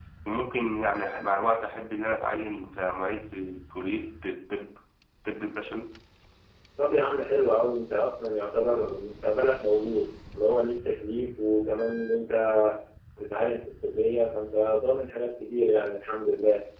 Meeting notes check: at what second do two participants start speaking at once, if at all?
none

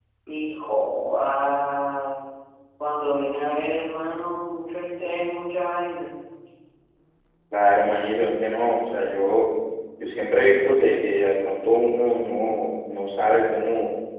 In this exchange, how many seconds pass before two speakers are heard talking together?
none

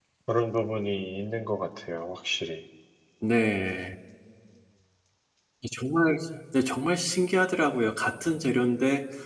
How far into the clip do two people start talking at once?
none

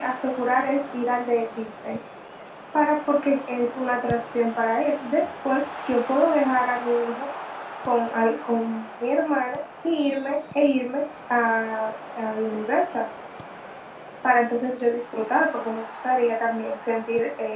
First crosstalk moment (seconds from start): none

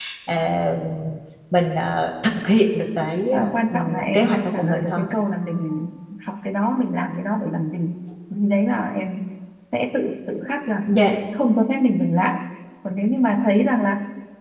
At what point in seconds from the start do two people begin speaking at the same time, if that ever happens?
3.3 s

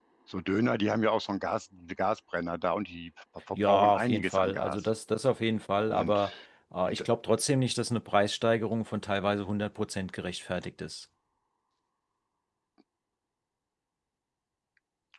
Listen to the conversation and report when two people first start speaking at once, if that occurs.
3.5 s

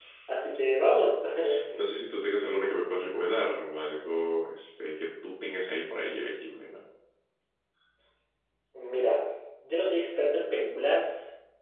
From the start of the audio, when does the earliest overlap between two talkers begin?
none

